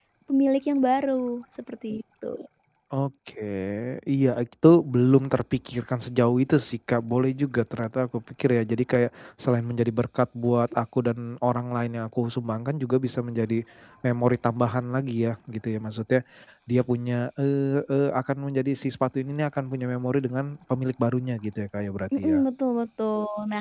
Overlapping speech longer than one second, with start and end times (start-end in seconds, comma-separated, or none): none